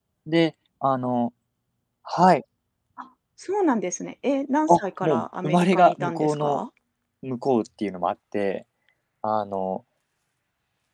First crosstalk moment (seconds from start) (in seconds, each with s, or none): 4.7 s